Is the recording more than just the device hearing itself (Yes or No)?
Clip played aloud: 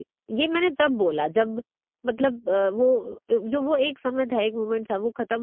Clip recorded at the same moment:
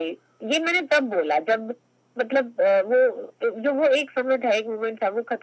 No